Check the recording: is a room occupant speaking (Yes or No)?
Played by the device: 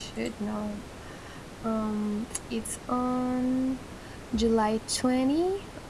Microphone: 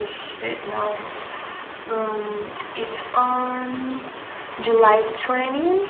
No